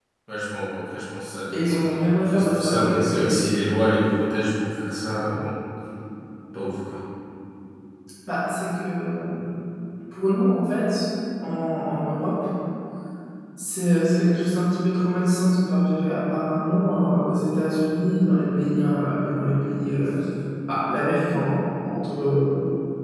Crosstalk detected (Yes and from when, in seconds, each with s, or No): Yes, from 1.5 s